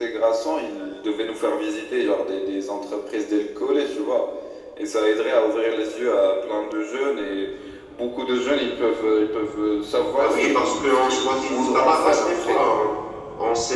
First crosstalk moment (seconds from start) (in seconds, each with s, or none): 10.2 s